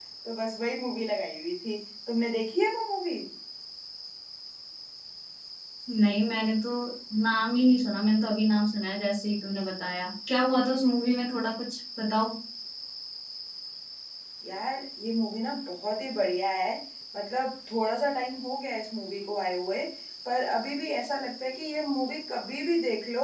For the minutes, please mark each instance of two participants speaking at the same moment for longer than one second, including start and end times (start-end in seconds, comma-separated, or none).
none